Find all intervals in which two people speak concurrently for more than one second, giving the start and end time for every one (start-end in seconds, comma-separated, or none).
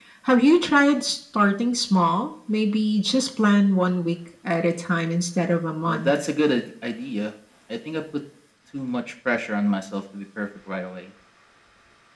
none